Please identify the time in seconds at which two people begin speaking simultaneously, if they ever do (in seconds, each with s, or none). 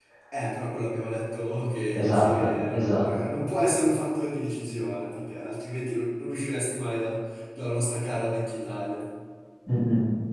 1.9 s